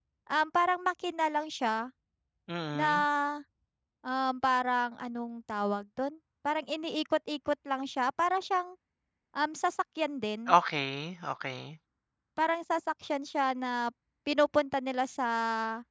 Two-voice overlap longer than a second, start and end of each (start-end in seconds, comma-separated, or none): none